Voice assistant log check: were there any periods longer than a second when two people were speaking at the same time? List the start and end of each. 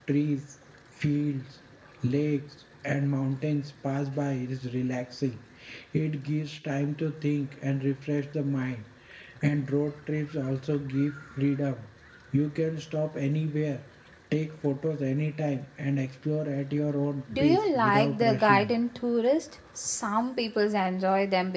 17.4-18.7

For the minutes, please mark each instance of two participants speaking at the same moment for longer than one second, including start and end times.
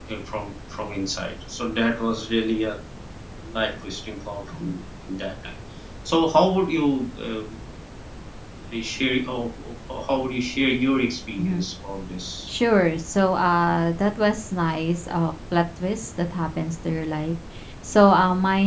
none

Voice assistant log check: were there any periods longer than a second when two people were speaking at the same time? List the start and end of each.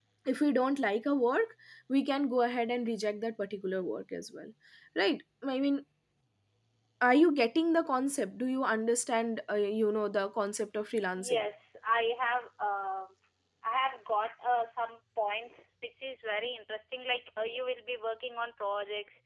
none

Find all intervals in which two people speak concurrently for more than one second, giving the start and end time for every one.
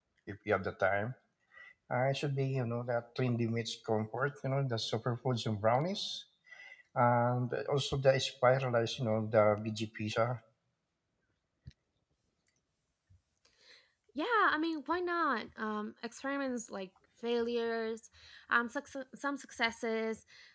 none

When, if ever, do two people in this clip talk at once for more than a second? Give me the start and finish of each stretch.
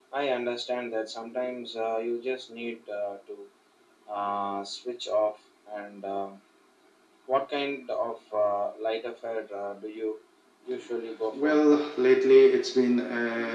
none

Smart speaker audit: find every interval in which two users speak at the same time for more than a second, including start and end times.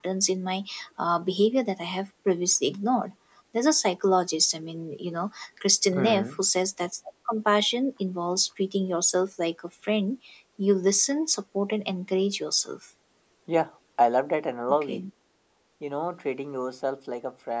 none

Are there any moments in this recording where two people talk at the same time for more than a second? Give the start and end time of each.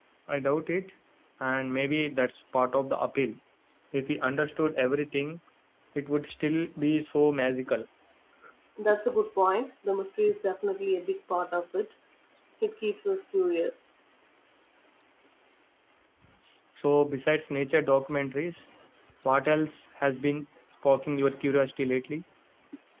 none

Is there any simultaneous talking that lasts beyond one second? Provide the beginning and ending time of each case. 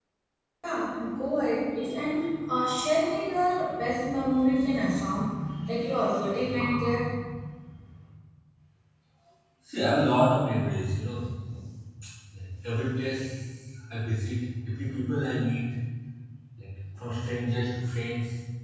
none

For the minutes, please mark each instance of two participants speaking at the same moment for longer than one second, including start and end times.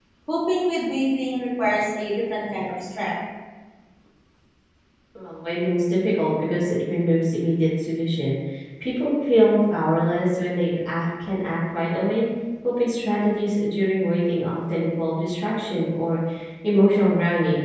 none

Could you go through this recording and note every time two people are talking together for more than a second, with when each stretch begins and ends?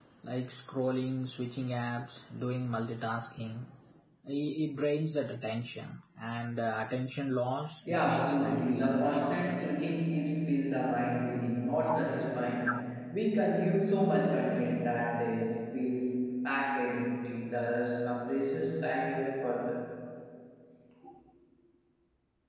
7.9-9.6

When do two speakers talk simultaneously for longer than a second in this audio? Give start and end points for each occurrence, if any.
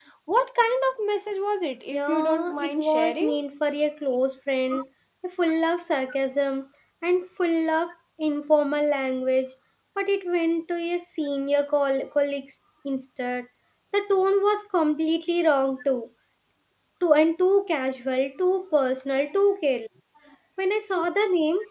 1.9-3.4

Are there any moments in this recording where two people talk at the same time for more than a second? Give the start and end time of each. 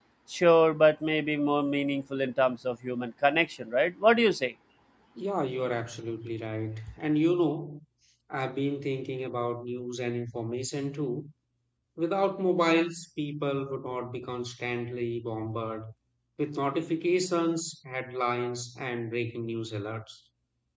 none

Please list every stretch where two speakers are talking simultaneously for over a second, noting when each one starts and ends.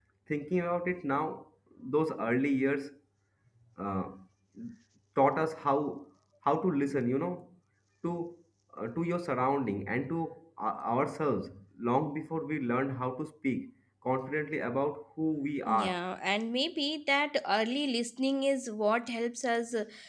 none

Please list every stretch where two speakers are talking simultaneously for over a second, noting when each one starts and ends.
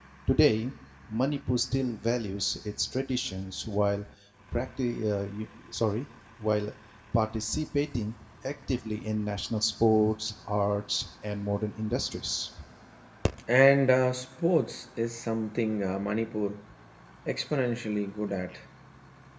none

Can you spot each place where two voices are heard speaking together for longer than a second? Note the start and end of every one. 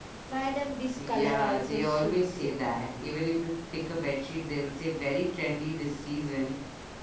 1.0-2.6

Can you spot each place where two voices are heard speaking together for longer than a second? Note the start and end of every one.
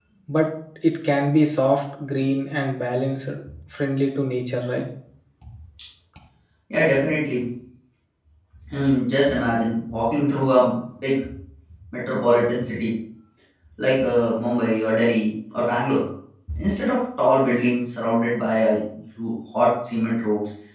none

